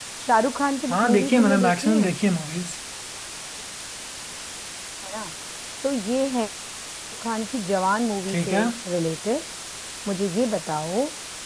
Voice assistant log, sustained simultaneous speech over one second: present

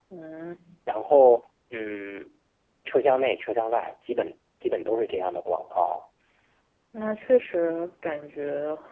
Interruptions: none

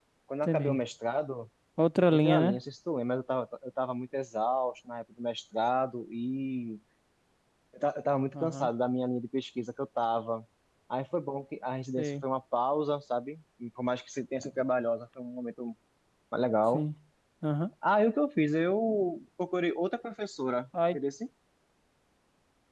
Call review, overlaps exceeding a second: none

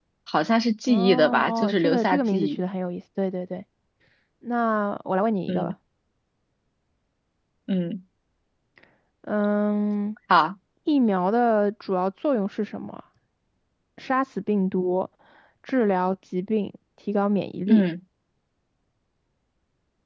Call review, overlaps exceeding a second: present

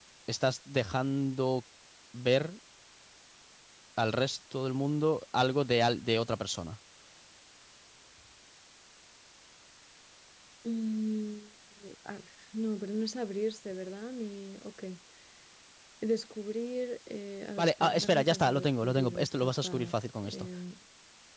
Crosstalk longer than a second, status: present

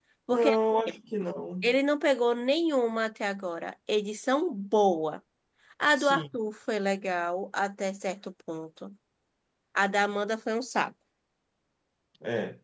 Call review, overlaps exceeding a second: none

